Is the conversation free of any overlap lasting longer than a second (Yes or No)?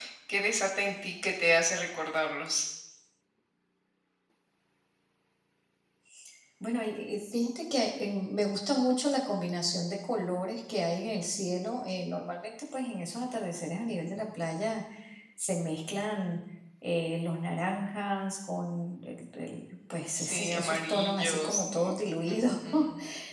No